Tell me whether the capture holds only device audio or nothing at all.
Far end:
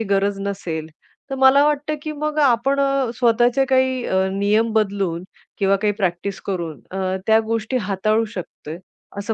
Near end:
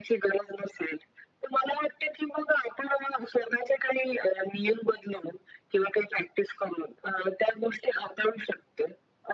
Yes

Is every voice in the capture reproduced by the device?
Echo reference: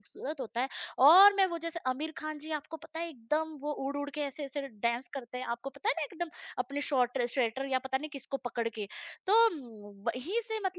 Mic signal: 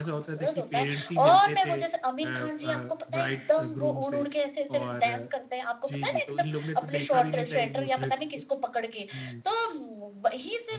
No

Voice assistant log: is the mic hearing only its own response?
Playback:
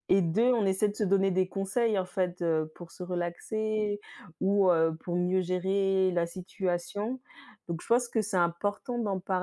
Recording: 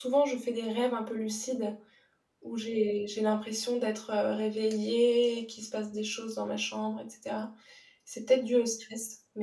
No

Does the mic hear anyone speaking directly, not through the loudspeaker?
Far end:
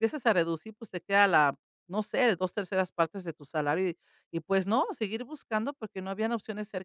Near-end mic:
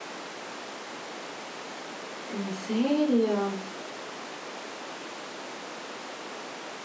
Yes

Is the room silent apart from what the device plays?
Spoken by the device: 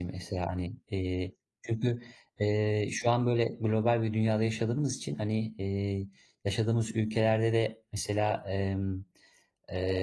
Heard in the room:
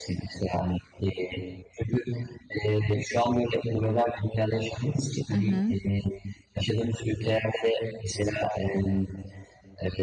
No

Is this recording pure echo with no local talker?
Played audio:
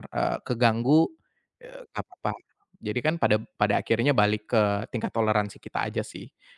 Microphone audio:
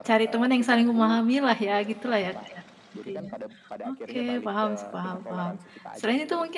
No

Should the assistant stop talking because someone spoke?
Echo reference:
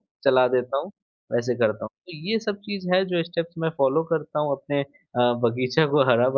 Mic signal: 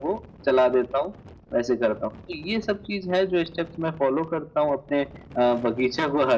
No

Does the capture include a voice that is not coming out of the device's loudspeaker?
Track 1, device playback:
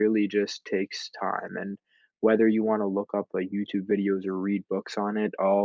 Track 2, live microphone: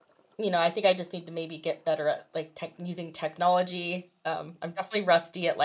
Yes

